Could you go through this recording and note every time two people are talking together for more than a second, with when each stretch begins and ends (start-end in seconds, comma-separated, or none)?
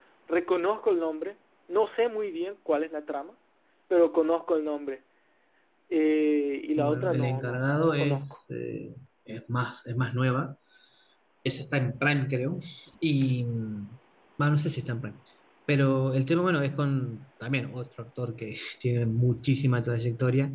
6.8-8.2